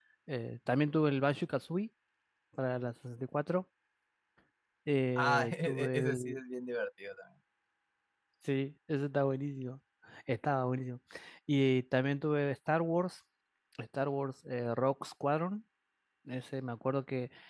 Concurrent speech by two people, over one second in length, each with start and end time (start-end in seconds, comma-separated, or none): 5.2-6.4